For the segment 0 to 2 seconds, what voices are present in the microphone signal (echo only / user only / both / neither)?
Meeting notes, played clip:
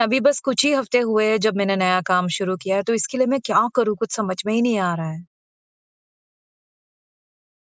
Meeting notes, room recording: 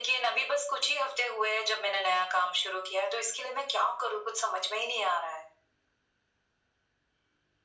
echo only